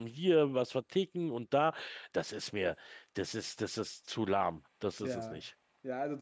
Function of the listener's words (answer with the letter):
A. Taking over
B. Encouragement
A